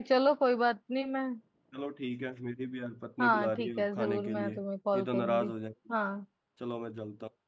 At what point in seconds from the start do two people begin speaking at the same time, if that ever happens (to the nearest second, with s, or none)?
3 s